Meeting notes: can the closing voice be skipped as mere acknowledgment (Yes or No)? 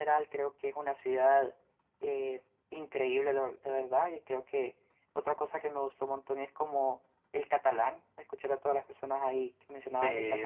No